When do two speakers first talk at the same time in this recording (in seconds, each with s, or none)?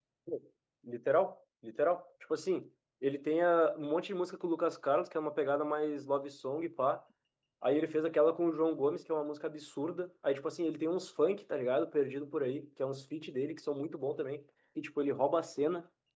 none